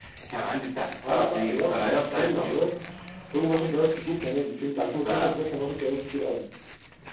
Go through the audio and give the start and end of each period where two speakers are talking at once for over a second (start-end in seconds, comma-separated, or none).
1.0-2.6